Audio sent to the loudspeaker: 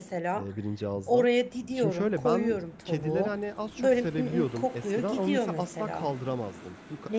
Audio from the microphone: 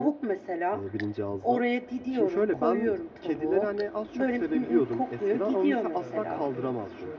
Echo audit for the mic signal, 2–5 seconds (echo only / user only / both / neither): echo only